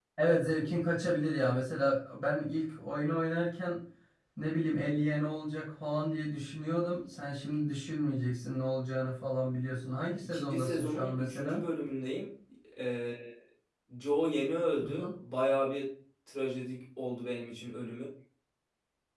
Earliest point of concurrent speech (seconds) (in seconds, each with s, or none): 10.2 s